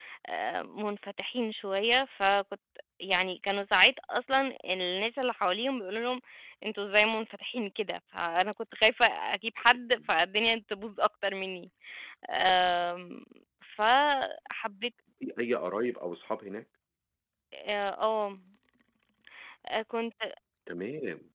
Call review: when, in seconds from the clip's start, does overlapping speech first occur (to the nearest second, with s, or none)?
none